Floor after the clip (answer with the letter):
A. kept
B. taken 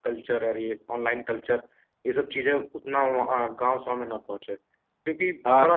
A